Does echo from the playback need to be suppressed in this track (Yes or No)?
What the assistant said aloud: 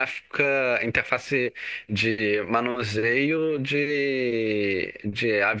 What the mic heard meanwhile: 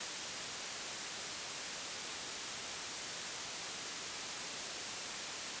No